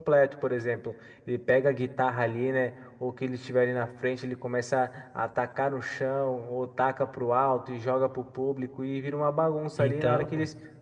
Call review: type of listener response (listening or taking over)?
listening